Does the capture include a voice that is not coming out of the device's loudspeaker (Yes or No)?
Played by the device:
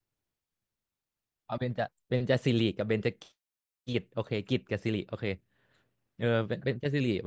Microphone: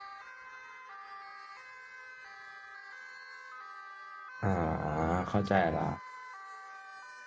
Yes